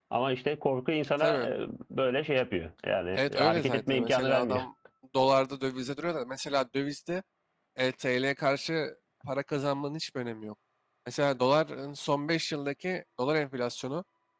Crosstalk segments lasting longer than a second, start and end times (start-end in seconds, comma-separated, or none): 3.1-4.6